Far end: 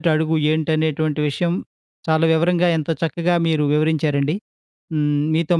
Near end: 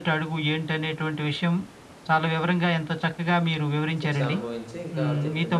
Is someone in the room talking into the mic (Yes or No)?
Yes